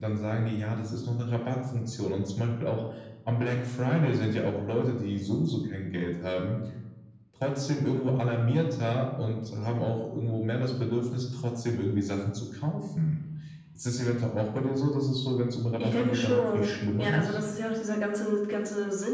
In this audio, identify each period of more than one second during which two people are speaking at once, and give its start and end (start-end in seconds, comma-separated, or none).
15.8-17.4